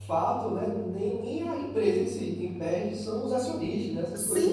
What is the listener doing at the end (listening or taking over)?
taking over